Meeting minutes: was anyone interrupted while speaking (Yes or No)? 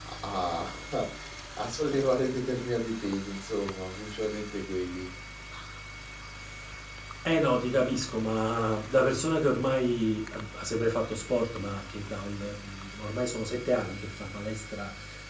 No